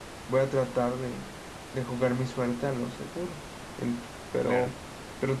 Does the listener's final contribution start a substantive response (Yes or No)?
No